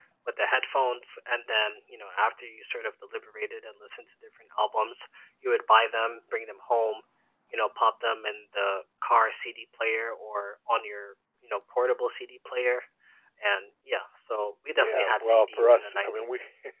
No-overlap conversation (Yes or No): No